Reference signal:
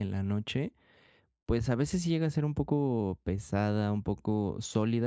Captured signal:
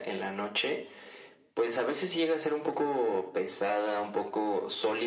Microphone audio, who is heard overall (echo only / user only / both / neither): echo only